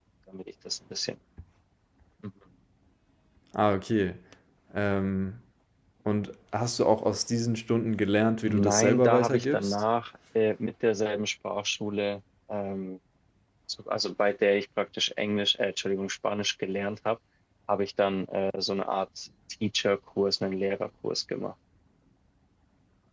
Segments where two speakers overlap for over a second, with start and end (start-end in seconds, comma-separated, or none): 8.4-9.8